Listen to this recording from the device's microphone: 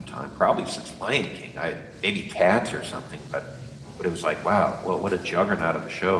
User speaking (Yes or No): Yes